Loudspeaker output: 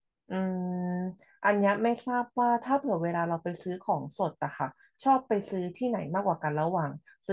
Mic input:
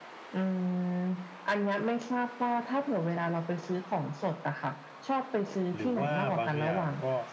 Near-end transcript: หรือว่าบางอย่างก็

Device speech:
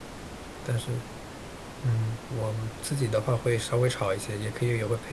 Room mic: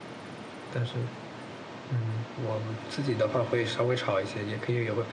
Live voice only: none

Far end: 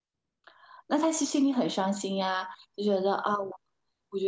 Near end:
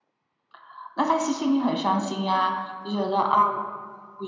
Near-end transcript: none

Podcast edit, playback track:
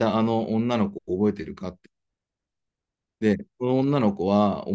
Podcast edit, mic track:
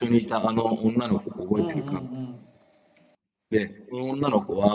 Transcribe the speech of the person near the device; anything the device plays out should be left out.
うんうんうん。

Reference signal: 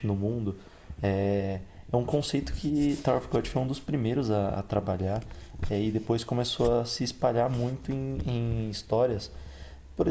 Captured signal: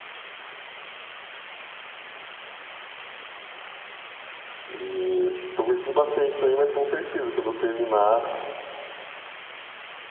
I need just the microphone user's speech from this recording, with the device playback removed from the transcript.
E tô curtindo bastante também, mas com certeza, quando eu terminar,

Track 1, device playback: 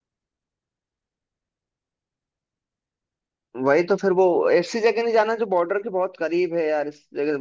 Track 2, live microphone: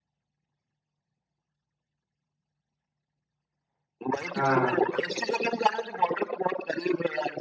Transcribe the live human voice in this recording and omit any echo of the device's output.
हाँ

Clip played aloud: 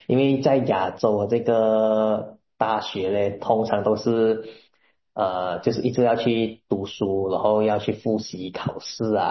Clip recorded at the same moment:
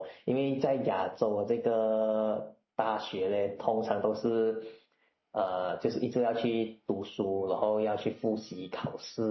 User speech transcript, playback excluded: none

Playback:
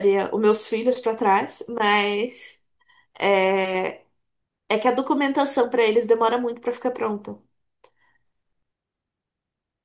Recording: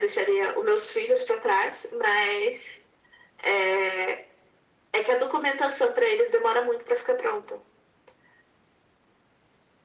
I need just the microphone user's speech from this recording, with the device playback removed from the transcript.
none

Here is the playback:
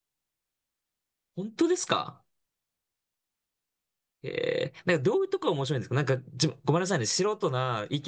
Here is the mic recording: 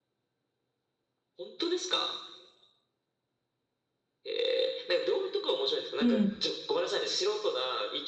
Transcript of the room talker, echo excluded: うん。

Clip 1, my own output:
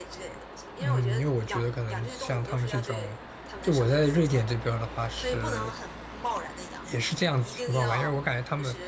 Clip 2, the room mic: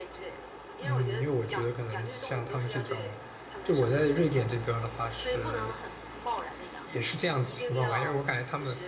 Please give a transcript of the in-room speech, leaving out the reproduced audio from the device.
none

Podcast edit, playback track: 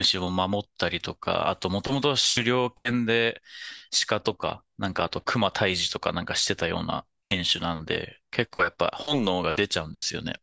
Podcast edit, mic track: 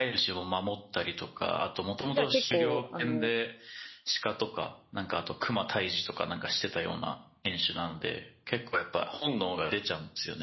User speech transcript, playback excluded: じゃあ結構、あの、

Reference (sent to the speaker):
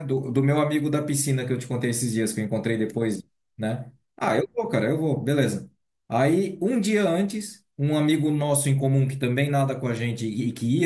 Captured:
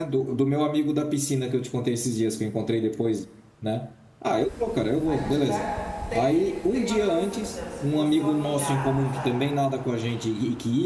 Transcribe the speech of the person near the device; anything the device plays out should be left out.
A gente dá. Tem, tem uma coisa assim, por exemplo, se fosse seu afilhado, sabe?

